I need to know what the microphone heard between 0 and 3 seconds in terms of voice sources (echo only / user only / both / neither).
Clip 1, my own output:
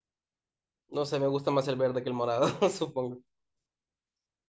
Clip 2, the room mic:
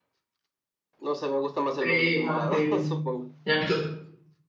both